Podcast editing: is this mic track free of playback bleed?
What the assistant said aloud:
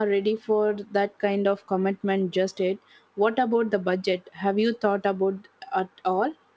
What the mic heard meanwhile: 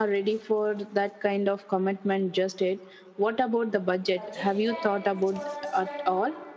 No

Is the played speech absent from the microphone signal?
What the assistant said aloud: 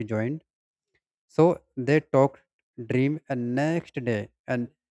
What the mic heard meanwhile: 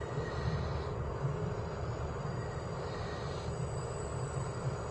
Yes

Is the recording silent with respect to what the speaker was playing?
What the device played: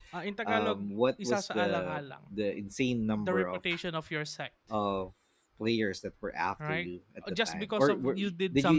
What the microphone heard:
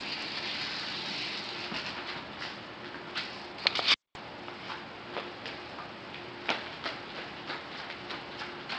Yes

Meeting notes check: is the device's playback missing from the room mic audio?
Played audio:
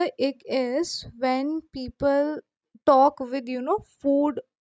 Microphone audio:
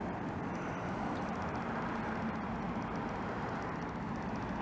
Yes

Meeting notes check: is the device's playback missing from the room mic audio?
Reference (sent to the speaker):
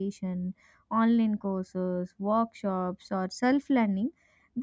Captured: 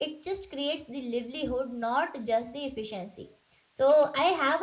Yes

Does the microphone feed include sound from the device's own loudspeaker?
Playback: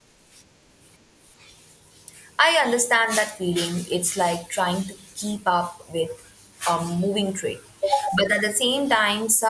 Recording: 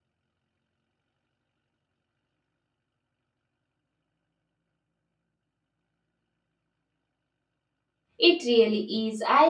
No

